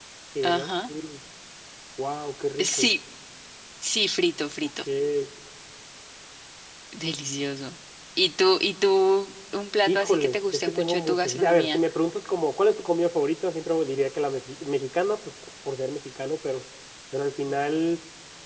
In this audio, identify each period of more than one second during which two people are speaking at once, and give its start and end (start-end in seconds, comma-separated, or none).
9.9-11.8